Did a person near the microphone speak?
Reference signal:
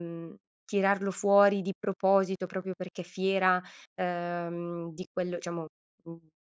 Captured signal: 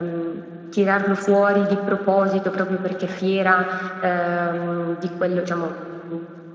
No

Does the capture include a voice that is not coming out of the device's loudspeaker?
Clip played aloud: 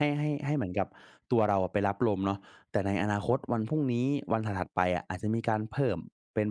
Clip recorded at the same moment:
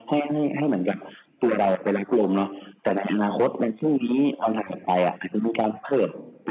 No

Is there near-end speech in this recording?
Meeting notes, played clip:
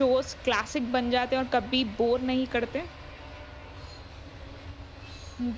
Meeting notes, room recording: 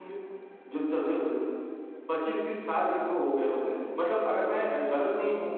Yes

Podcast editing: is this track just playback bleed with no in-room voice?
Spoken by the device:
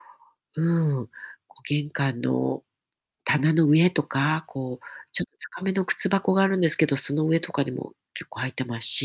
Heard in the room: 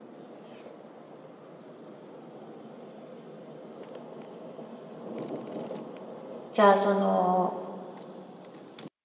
No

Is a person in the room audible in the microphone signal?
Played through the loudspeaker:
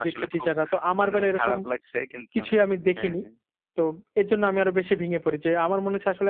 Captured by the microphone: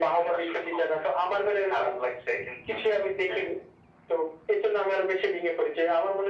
No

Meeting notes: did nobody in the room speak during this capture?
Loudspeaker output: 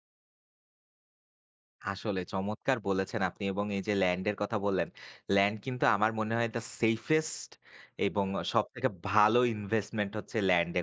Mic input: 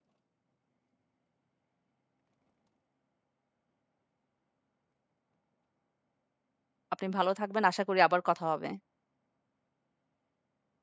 No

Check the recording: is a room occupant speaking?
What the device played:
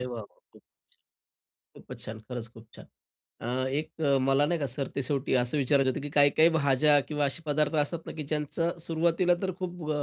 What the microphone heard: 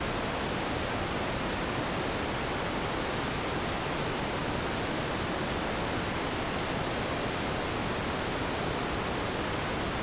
No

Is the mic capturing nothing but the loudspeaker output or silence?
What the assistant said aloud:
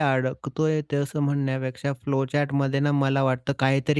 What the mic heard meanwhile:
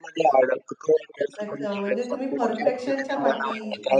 No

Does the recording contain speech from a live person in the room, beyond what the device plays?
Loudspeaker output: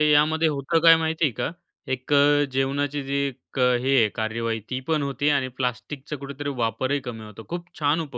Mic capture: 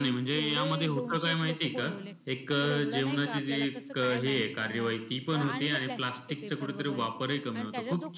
Yes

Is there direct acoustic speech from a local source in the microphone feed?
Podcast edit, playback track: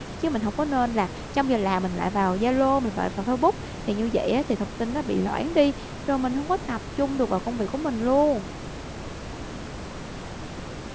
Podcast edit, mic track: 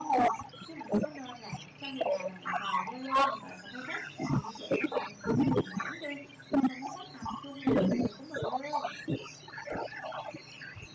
No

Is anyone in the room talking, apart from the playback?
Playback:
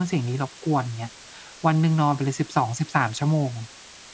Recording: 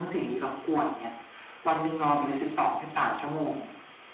No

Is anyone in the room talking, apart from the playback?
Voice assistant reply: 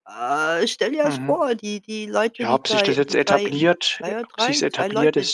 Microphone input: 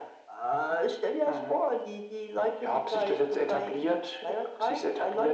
No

